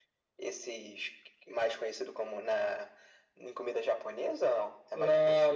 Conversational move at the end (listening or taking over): taking over